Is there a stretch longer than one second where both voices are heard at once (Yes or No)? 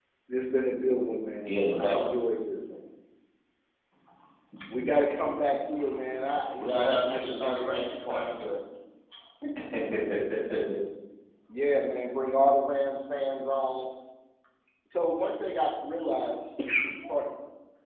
Yes